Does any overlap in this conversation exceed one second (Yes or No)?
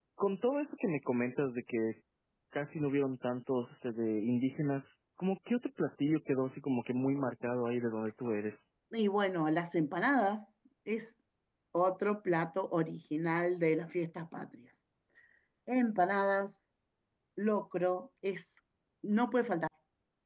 No